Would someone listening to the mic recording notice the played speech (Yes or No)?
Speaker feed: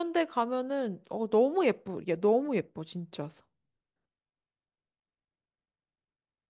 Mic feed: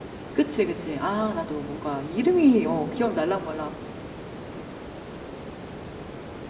No